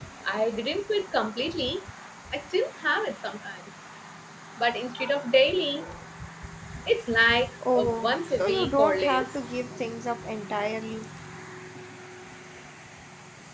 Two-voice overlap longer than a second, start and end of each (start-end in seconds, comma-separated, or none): 7.7-9.3